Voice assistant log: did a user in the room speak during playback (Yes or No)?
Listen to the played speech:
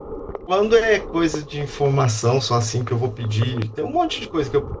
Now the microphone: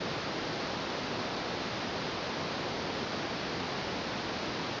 No